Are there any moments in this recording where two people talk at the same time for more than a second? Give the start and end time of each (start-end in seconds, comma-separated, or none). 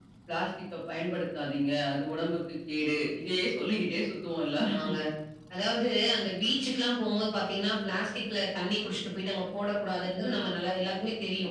none